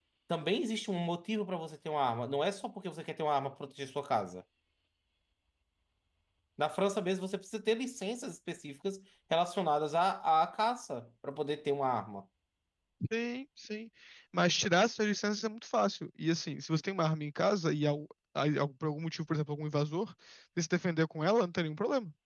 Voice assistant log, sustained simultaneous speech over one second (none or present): none